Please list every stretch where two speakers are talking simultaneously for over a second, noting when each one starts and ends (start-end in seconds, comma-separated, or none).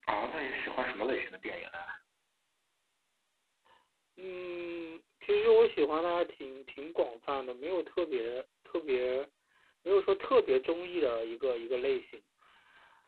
none